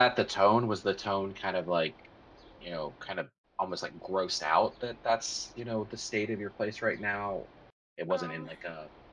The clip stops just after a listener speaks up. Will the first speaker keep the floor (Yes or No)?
Yes